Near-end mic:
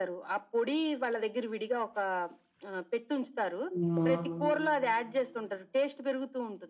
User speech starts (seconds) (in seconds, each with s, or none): 3.8 s